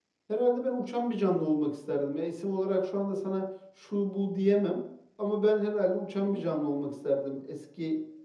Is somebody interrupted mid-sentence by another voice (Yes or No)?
No